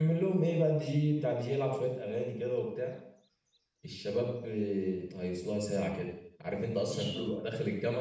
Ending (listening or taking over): listening